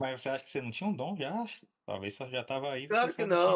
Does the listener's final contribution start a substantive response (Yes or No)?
Yes